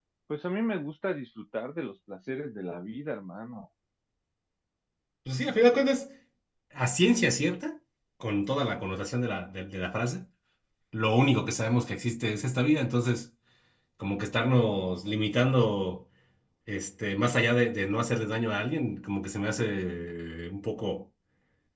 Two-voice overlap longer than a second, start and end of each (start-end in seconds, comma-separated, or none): none